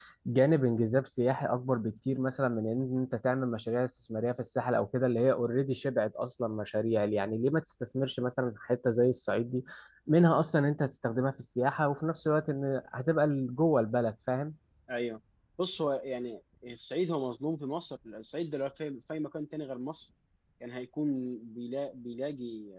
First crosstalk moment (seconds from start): none

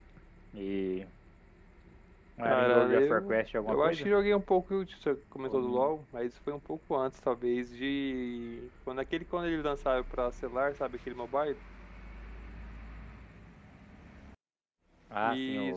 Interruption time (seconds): 2 s

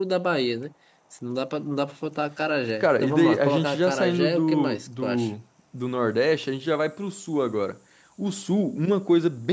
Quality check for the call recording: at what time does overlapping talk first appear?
3 s

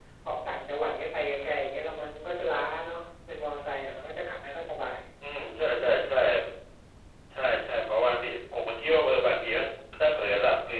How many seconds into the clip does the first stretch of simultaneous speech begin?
none

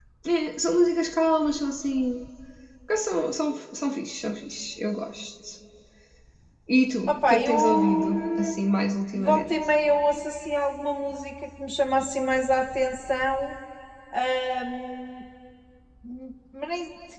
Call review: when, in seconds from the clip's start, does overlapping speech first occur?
7 s

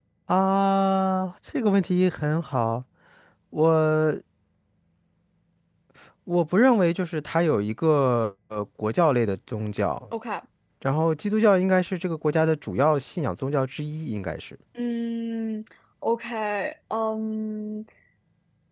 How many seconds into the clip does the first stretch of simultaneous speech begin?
none

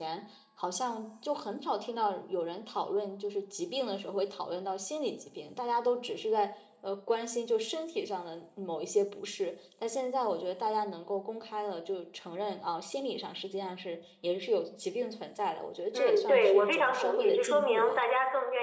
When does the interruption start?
16 s

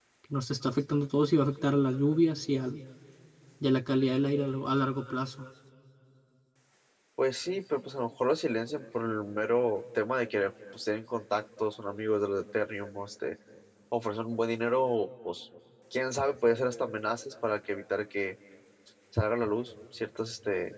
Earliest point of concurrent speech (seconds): none

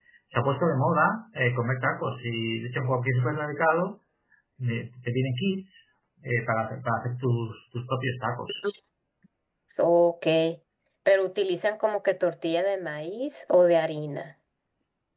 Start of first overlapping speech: none

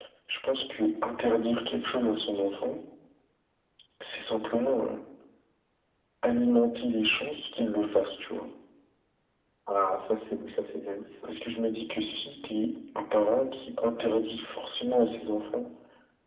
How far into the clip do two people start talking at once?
none

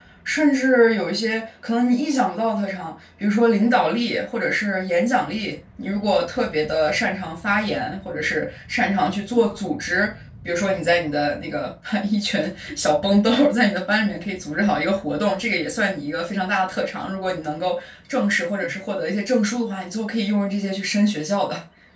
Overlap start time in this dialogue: none

